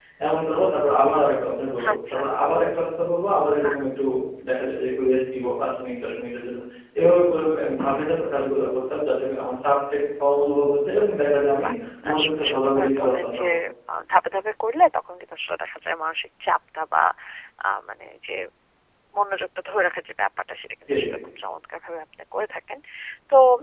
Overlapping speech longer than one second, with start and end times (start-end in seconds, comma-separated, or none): 12.1-13.4